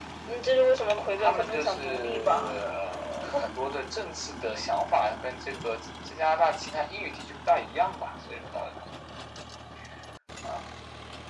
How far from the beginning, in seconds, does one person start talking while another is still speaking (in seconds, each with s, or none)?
1.2 s